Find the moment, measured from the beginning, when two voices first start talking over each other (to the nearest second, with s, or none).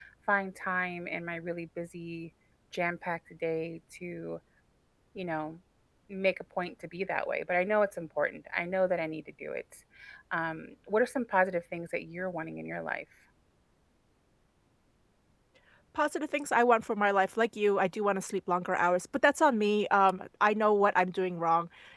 none